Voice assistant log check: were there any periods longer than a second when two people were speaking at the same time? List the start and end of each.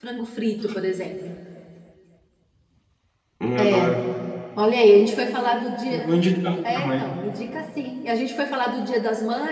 none

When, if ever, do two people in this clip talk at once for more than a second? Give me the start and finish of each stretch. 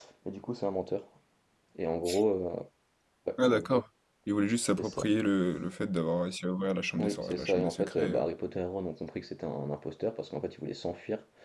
7.0-8.2

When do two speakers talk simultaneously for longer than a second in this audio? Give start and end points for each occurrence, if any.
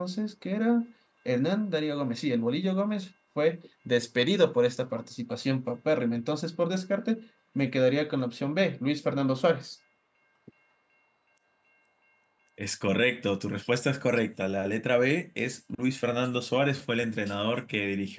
none

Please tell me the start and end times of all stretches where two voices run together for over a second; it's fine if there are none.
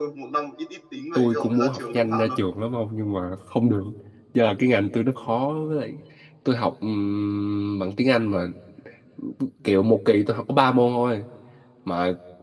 1.2-2.4

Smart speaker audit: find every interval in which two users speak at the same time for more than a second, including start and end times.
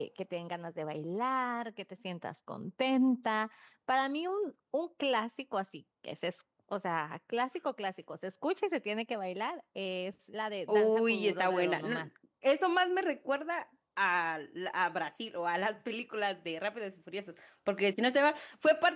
10.7-12.1

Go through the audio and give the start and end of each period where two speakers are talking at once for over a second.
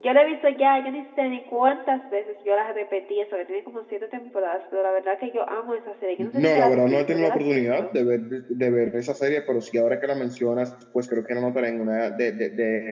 6.3-7.8

